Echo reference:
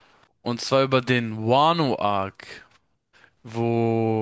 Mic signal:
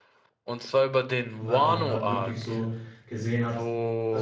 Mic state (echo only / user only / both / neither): both